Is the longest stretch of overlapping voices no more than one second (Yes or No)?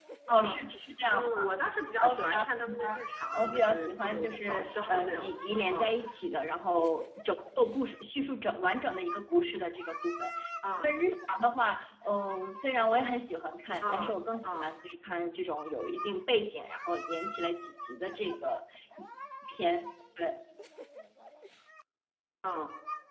No